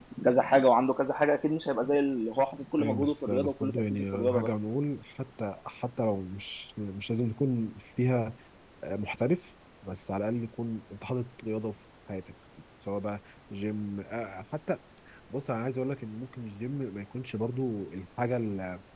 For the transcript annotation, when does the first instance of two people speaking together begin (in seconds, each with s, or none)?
2.8 s